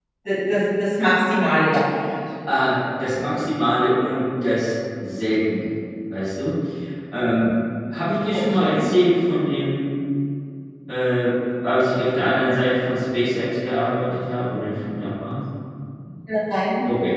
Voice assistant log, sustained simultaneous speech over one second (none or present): none